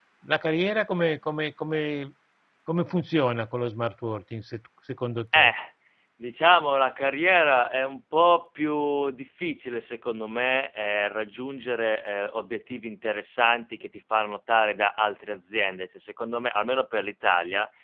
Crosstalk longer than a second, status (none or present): none